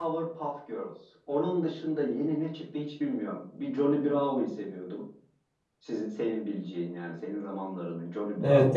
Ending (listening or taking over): taking over